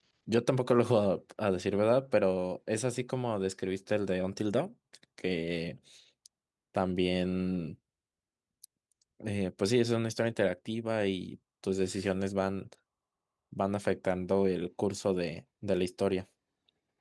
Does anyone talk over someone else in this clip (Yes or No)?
No